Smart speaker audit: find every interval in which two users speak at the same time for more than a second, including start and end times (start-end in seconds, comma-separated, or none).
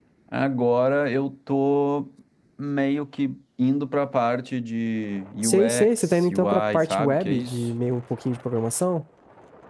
5.4-7.7